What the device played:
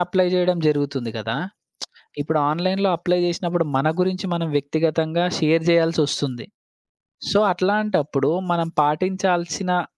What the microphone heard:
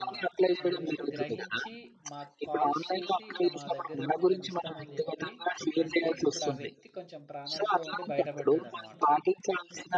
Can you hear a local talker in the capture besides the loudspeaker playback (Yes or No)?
Yes